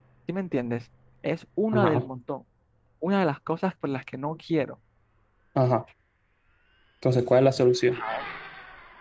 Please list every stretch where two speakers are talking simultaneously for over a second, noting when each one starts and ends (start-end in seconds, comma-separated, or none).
none